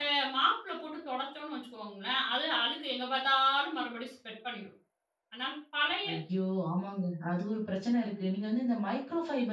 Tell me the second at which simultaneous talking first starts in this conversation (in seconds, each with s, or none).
none